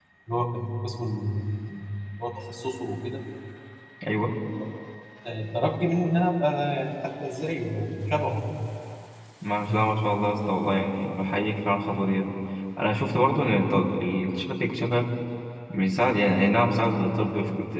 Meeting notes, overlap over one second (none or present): none